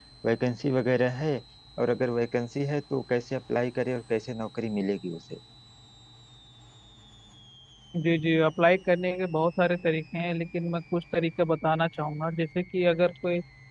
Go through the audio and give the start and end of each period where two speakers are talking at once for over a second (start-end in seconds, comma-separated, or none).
none